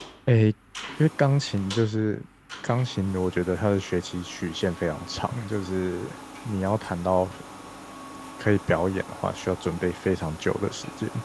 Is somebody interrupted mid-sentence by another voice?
No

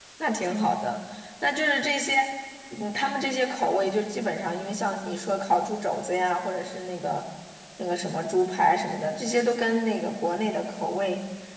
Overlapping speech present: No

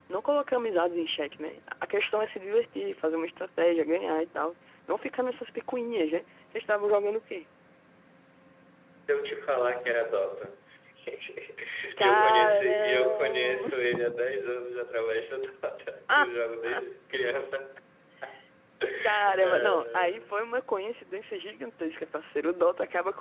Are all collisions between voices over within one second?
No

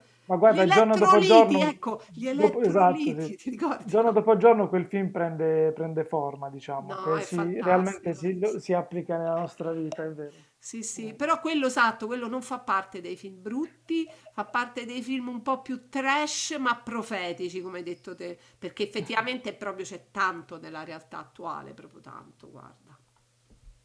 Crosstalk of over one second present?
Yes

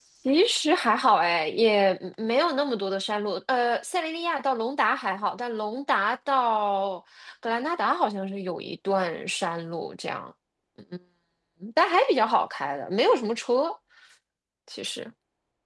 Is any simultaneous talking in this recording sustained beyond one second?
No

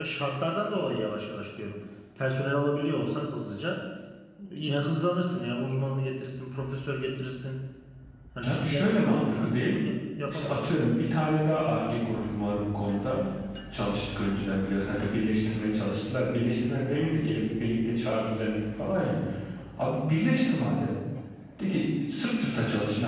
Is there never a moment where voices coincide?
No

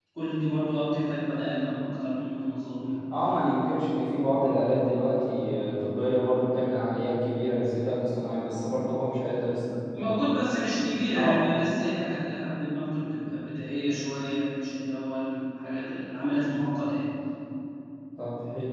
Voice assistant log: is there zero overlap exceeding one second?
Yes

